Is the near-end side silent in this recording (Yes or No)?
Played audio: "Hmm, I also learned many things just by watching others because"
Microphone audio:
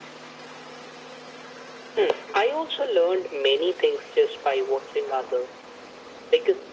Yes